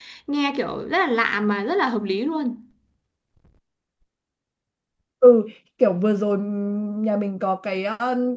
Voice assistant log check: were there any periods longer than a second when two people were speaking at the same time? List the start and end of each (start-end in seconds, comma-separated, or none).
none